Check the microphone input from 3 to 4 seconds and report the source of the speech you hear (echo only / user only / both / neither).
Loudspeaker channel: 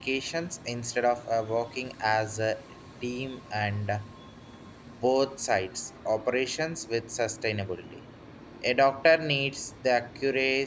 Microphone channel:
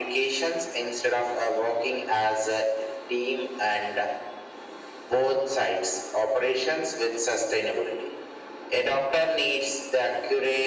echo only